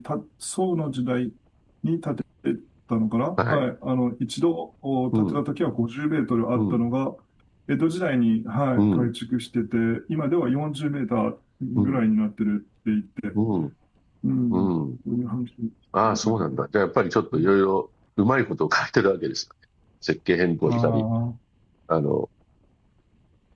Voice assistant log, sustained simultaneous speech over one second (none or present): none